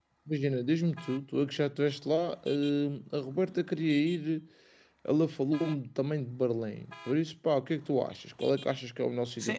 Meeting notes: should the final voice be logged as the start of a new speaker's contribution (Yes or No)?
Yes